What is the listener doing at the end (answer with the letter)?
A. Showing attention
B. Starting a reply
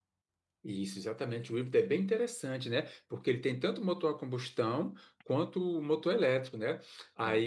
A